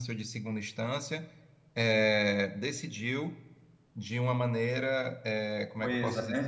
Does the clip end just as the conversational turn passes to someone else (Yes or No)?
No